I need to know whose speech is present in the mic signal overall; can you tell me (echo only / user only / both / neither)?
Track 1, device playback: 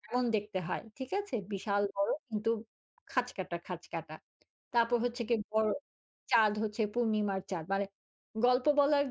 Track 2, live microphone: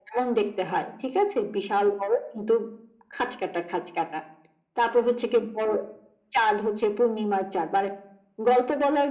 echo only